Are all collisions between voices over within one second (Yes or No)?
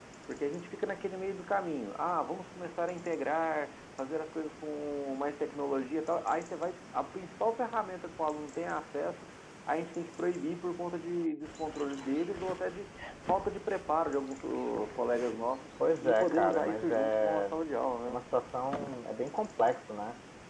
No